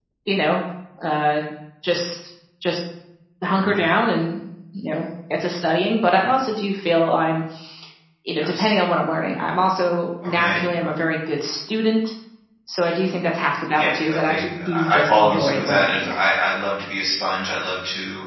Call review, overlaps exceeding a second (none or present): present